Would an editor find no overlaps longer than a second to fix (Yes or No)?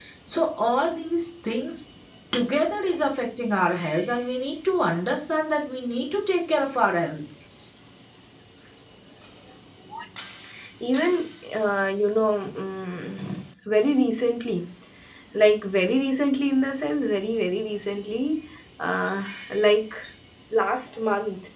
Yes